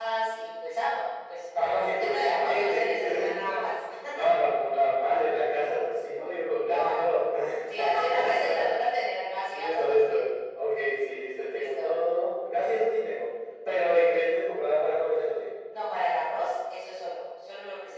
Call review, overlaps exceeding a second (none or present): present